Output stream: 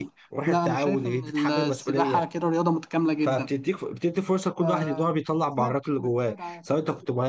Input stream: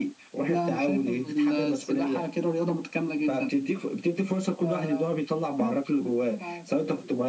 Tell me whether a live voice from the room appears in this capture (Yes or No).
No